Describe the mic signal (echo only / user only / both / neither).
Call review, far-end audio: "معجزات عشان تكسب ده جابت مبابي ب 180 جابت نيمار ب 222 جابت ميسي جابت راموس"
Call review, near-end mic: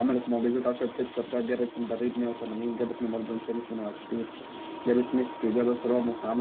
echo only